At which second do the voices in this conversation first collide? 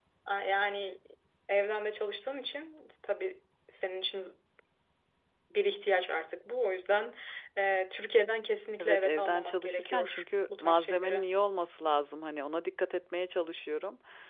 8.8 s

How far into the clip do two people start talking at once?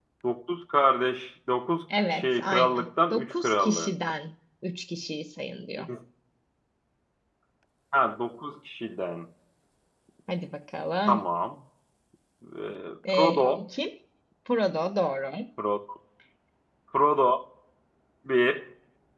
2.1 s

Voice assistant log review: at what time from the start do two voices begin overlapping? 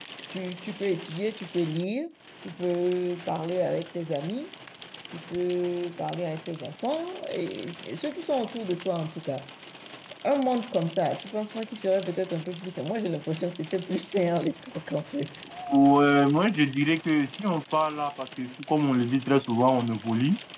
none

